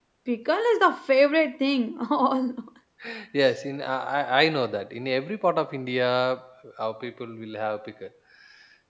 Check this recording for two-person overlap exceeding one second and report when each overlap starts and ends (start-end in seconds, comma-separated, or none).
none